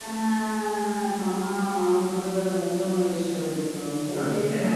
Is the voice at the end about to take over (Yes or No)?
Yes